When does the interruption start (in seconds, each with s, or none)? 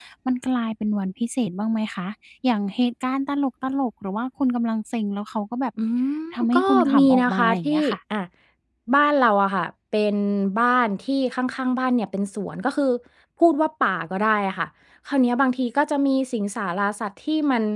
6.4 s